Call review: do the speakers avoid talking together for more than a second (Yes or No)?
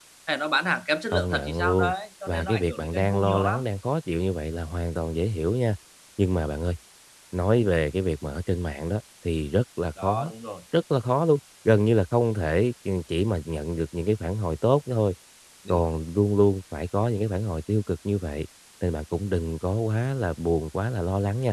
No